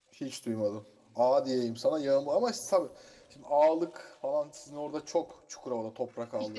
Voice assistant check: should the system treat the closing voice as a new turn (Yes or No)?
Yes